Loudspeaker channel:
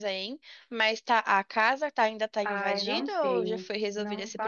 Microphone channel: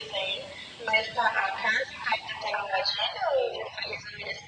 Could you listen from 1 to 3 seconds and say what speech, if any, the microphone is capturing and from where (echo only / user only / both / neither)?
echo only